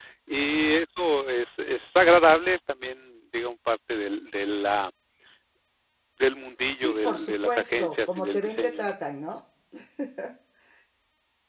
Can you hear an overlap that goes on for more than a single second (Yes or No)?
Yes